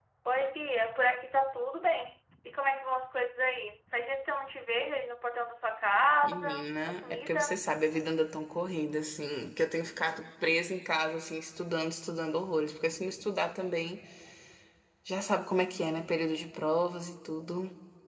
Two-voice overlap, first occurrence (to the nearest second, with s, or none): 6 s